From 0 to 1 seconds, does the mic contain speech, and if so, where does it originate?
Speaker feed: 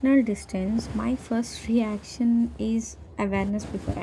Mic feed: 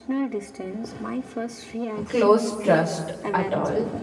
echo only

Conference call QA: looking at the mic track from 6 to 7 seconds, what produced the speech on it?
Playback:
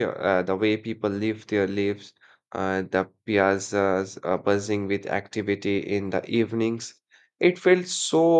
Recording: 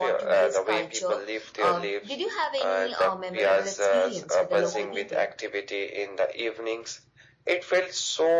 echo only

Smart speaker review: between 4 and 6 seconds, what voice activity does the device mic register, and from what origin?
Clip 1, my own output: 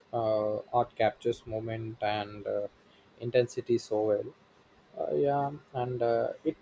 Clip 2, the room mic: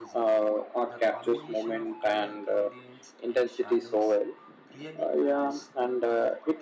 both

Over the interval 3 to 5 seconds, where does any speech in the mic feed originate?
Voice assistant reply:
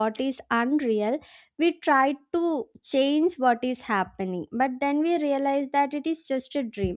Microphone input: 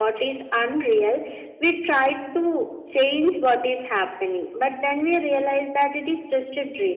echo only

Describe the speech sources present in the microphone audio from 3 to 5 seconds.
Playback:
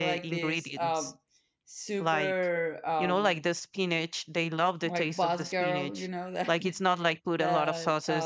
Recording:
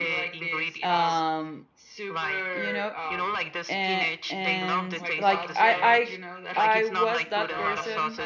both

